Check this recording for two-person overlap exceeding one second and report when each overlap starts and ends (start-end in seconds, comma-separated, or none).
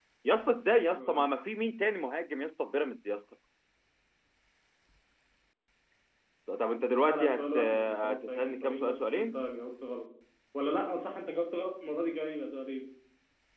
7.0-9.4